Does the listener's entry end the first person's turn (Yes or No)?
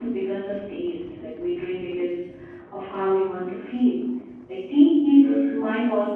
No